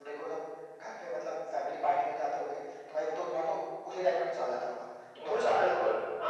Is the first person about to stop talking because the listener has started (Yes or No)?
Yes